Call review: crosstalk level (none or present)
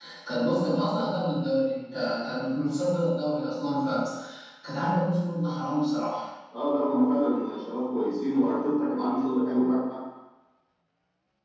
none